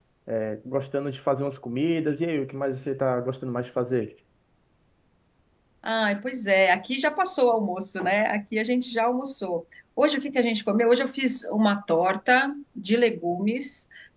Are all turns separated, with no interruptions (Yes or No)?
Yes